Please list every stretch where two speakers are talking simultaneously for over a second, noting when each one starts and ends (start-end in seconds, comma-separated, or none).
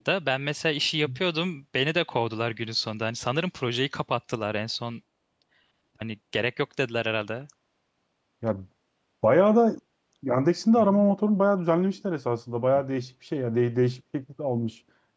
none